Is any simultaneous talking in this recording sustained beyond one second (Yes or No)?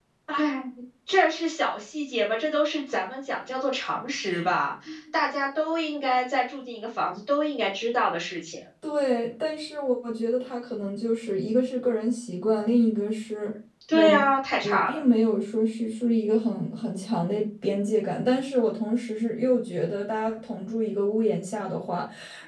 No